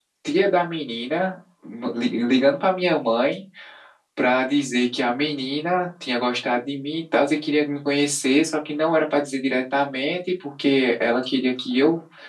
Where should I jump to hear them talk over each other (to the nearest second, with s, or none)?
none